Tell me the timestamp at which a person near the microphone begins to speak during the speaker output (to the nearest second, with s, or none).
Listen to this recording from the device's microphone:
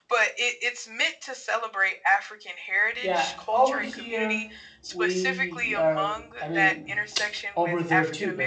3 s